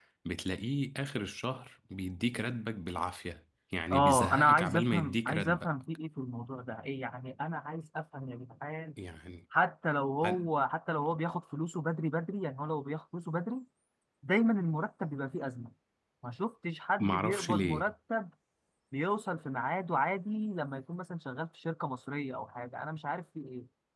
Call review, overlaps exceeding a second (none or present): present